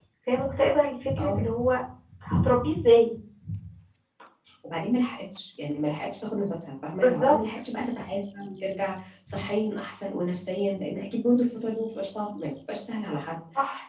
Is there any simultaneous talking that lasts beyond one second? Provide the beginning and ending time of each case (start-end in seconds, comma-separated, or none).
none